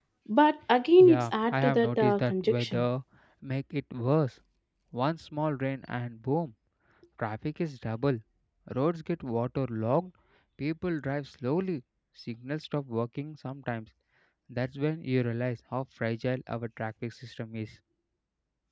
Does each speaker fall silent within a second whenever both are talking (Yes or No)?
No